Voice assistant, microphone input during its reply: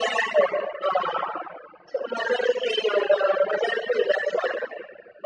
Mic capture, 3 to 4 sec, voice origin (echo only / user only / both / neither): echo only